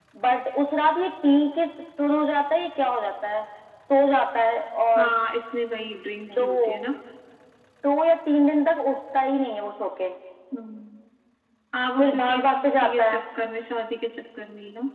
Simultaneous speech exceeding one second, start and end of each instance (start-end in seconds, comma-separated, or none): 12.0-13.2